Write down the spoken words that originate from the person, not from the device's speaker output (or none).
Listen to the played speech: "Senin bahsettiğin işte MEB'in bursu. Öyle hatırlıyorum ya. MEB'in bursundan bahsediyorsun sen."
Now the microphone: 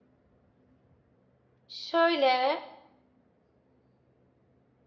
Şöyle